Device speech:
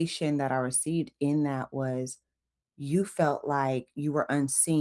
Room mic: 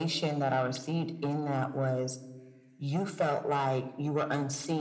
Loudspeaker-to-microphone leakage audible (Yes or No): Yes